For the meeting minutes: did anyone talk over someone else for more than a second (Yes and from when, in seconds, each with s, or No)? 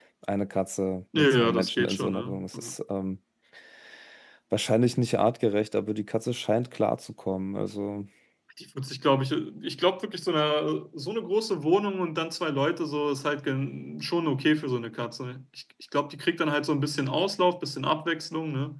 Yes, from 1.2 s